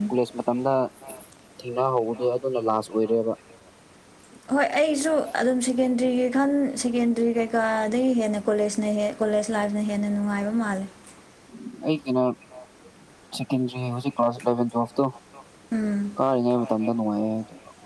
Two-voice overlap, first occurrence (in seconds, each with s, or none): none